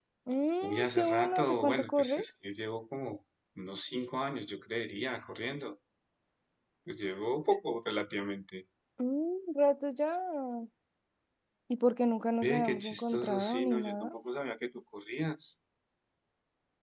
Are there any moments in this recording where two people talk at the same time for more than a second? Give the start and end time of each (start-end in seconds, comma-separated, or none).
0.6-2.2, 12.4-14.1